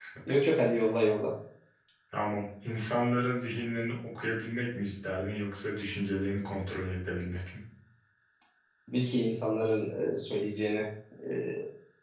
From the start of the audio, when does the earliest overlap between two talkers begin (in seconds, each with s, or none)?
none